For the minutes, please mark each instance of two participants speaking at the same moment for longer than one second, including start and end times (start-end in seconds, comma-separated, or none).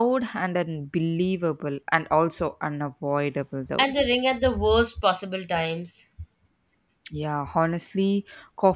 none